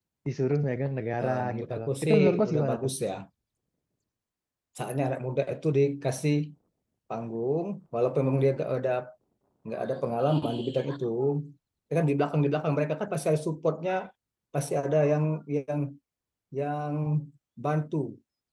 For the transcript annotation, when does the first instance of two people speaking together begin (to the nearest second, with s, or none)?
1 s